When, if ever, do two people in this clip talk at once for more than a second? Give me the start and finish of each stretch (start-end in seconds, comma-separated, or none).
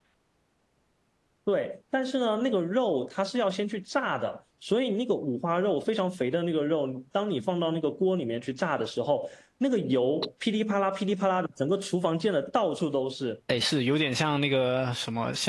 none